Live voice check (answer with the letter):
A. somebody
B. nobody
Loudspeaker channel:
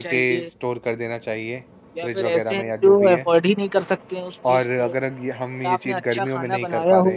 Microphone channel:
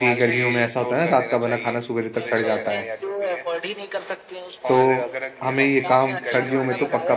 A